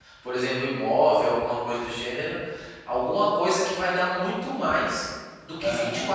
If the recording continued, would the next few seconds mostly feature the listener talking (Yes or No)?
No